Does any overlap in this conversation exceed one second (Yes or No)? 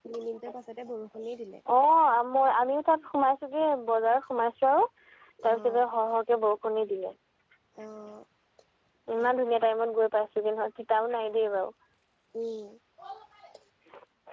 No